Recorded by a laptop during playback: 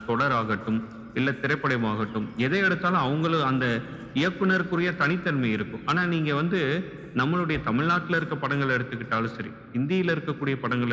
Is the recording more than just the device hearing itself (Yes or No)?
No